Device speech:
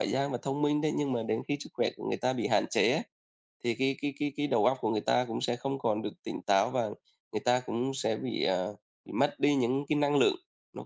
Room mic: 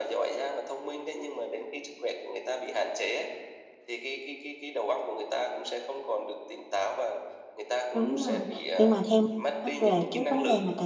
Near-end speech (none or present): present